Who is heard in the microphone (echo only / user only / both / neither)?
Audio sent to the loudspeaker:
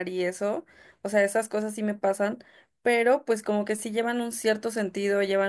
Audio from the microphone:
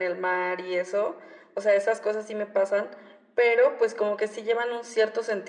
echo only